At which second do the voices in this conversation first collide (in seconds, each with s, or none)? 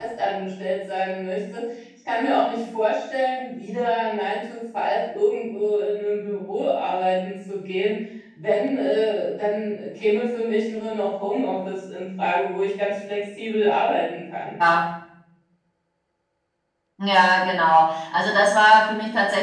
none